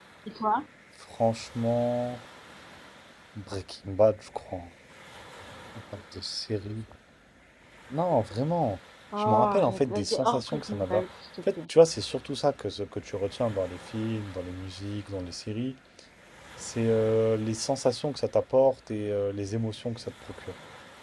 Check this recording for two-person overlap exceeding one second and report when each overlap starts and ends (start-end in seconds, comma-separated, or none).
9.2-11.0